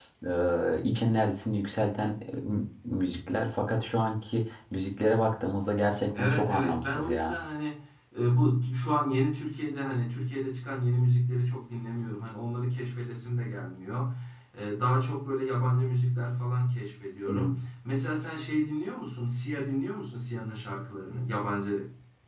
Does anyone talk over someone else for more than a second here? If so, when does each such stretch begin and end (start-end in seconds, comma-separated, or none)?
6.1-7.3